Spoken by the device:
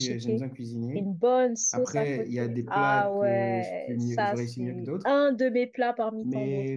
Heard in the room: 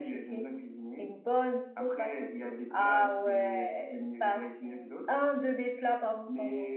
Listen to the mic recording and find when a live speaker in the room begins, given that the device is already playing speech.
none

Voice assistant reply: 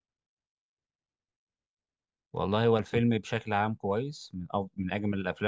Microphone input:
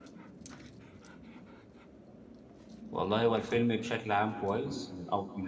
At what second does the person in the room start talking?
none

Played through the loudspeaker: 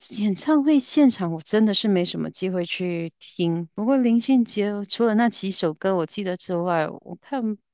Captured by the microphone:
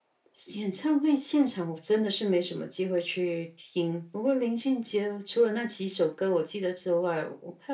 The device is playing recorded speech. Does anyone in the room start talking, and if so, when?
none

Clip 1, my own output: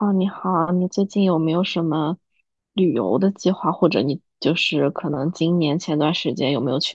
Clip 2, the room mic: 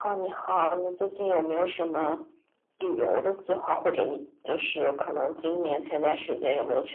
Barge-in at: none

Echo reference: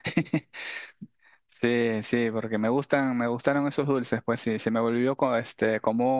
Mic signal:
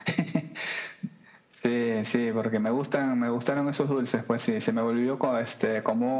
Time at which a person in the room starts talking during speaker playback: none

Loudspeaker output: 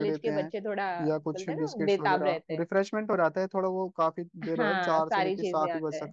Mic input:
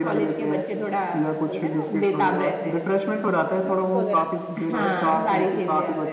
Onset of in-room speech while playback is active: 3.6 s

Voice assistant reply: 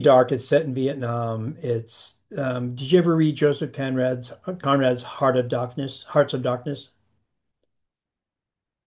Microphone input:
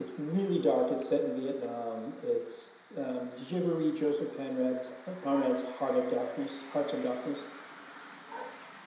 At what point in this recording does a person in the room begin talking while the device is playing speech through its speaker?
none

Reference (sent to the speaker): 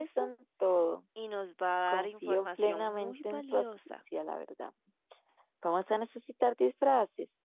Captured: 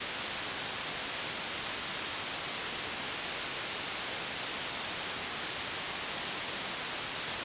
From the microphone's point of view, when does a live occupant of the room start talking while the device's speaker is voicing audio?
none

